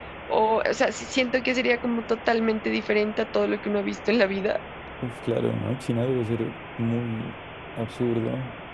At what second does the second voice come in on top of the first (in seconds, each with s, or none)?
none